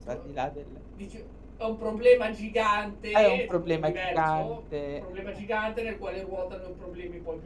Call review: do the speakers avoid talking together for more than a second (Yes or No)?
No